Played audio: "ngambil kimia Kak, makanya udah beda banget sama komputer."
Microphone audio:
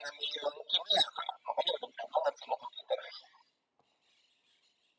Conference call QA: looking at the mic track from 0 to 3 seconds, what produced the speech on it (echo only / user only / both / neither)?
echo only